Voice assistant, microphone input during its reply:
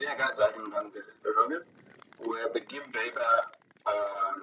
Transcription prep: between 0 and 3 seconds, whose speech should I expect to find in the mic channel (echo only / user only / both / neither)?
echo only